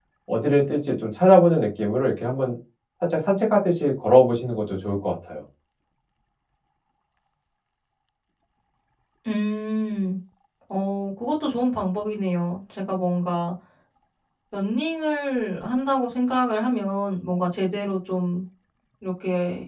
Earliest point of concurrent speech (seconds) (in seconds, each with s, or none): none